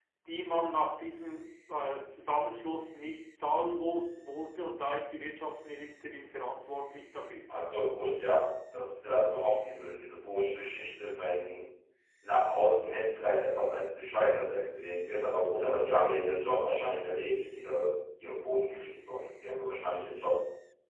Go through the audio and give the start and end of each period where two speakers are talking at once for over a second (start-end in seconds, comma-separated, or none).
none